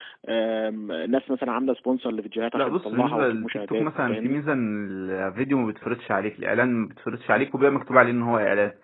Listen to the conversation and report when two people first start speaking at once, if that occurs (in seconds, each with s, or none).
2.6 s